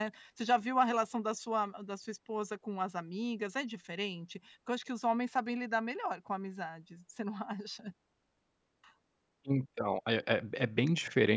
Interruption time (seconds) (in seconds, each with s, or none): none